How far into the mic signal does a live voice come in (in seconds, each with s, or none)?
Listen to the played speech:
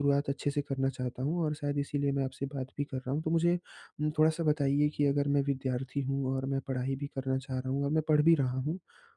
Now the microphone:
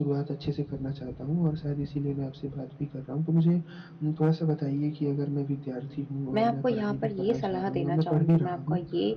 6.3 s